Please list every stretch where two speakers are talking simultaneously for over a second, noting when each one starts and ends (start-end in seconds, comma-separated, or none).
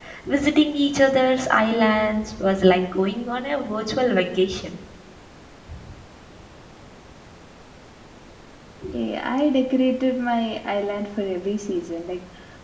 none